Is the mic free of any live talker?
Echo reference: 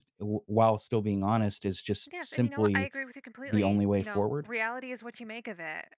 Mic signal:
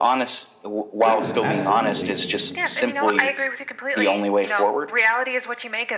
No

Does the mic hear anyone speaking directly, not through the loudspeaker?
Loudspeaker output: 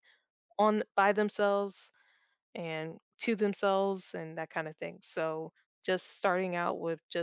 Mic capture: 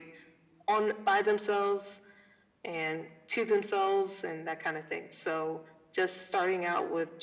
No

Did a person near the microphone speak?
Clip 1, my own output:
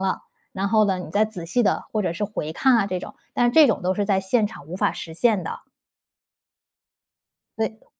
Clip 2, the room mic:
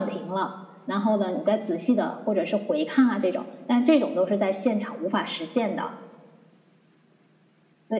No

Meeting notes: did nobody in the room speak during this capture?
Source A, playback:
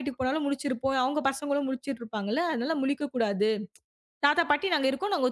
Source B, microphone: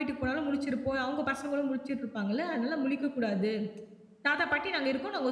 Yes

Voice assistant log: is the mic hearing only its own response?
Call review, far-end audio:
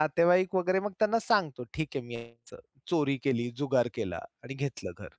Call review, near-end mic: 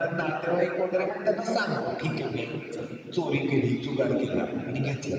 Yes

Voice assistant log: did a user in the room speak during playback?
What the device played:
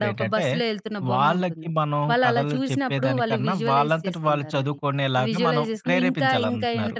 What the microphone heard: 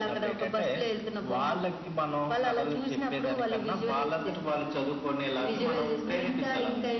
No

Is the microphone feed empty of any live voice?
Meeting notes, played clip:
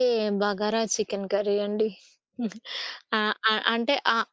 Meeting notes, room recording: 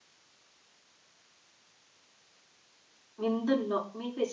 No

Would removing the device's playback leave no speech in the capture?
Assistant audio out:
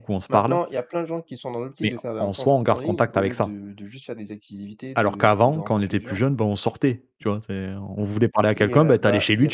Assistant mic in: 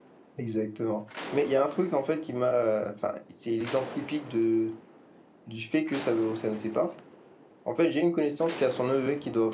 No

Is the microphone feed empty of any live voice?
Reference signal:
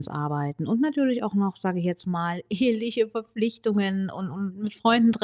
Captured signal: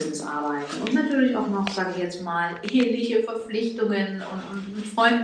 Yes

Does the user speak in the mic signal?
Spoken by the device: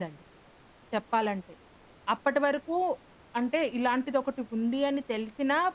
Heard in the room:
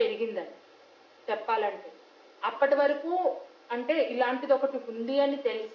No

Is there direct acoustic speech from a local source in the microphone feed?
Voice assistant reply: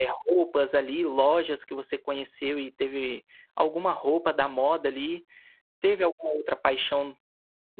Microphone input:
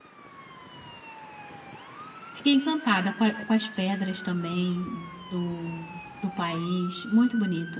Yes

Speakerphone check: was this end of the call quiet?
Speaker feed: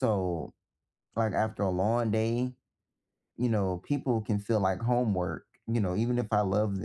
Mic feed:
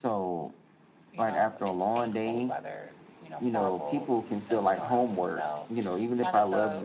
No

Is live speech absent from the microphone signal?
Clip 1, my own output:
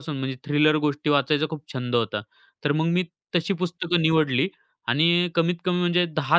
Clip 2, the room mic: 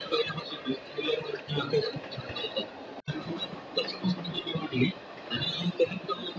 Yes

